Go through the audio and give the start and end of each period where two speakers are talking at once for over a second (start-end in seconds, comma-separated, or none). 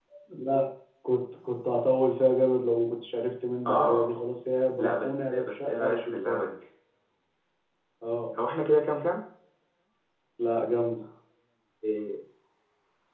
4.8-6.4